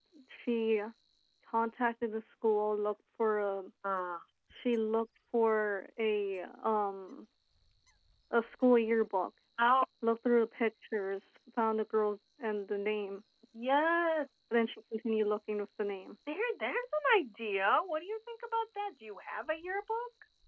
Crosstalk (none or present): none